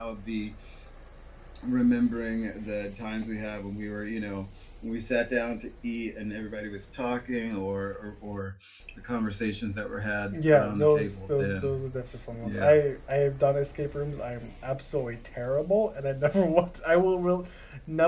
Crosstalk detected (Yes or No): Yes